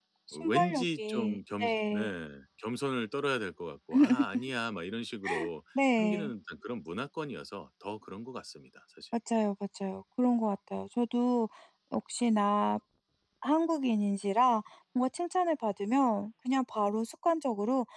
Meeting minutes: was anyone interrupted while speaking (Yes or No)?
Yes